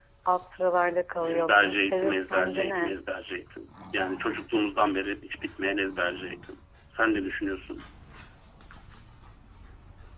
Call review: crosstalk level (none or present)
present